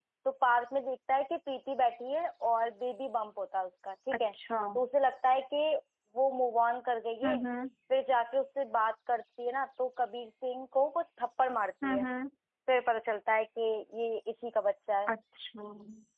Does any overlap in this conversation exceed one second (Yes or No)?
No